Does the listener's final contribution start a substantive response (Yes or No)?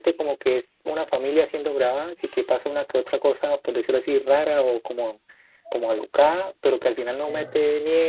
No